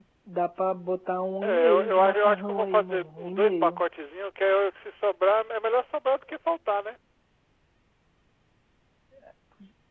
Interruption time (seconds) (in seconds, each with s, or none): 1.4 s